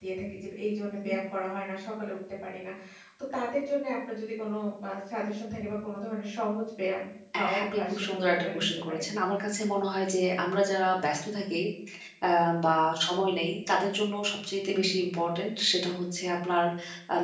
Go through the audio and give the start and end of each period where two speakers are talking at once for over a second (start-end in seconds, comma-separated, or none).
7.4-9.0